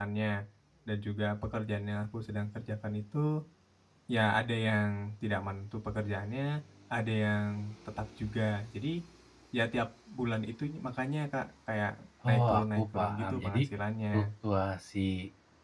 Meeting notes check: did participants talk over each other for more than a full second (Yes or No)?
Yes